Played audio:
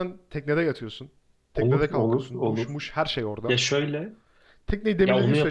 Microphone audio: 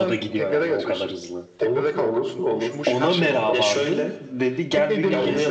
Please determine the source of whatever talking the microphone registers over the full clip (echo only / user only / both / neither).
both